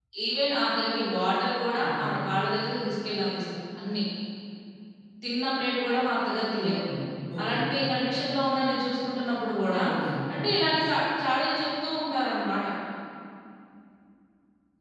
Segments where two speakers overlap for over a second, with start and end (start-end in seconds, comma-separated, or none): none